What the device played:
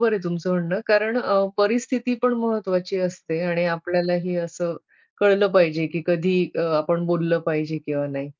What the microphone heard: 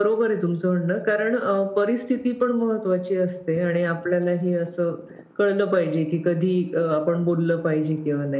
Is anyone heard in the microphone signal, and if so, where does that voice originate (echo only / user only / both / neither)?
echo only